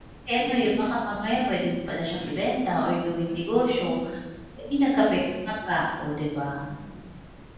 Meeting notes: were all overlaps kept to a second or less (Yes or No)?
No